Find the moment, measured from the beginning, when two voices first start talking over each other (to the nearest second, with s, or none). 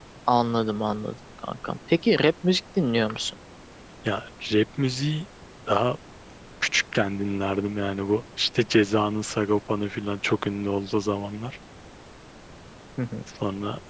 none